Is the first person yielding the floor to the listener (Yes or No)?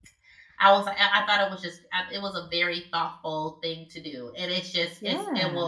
No